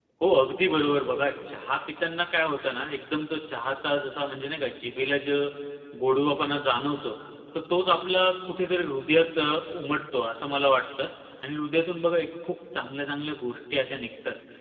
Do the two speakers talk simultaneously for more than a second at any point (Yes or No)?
No